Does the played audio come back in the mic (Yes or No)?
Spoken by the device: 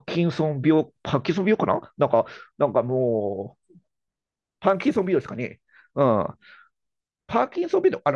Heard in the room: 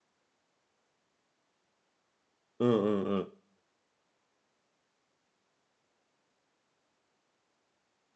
No